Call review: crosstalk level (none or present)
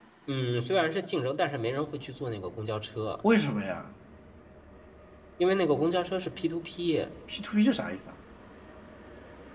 none